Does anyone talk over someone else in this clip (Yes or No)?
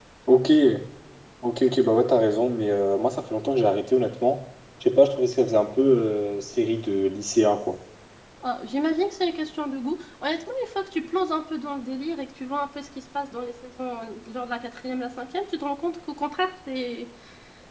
No